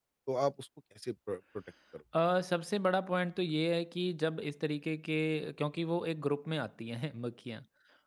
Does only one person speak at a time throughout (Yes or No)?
Yes